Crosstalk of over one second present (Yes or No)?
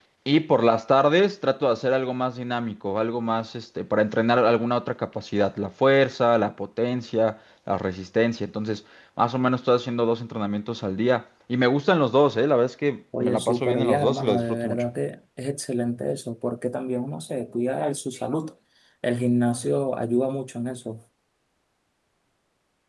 Yes